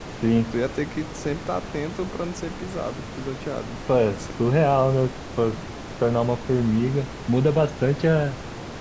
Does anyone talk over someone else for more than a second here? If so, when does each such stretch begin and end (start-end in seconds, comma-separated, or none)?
none